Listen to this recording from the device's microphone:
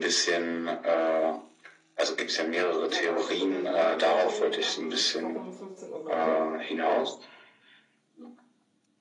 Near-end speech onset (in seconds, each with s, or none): 2.8 s